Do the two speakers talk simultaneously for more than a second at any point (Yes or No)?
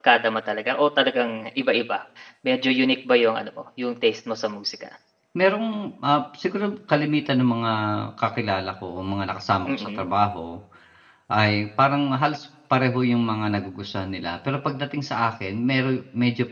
No